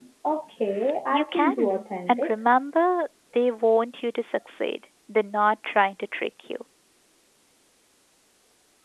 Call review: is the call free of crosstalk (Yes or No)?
No